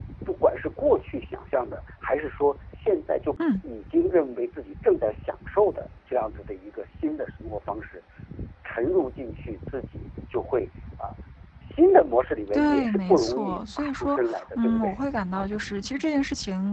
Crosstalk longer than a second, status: present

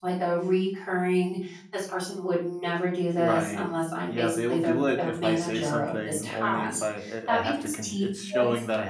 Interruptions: present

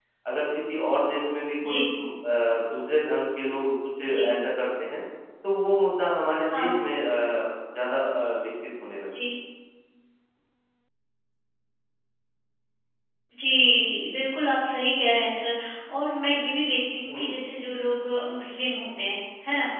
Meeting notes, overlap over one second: none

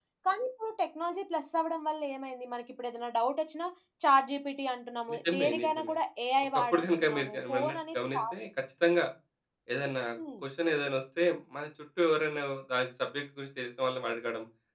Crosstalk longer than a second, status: present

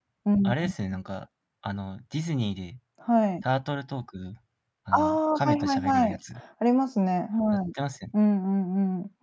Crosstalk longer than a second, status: present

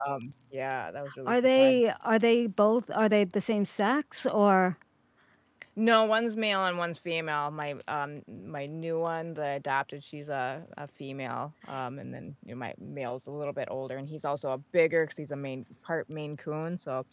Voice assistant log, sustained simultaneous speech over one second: none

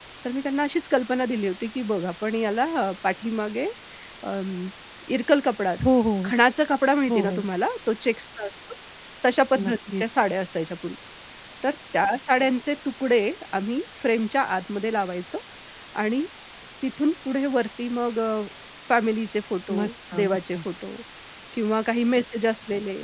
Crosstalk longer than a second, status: none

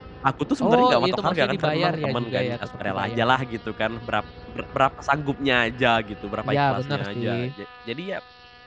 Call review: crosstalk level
present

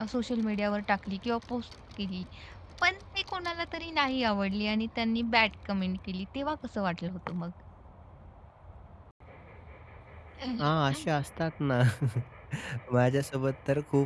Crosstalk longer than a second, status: none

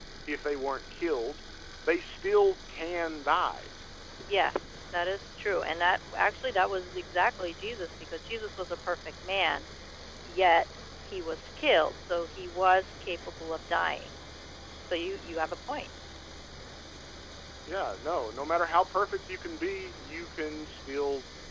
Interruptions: none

